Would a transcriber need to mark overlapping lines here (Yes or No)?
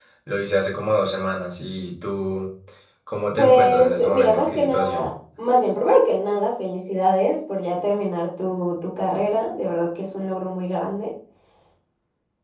Yes